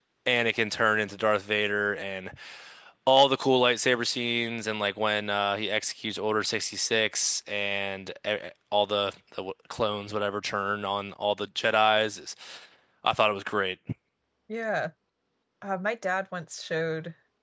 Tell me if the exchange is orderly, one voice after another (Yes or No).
Yes